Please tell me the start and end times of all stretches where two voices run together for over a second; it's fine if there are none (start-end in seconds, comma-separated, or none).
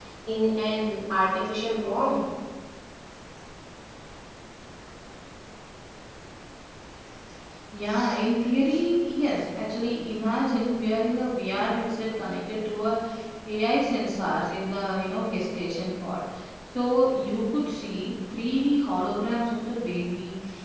none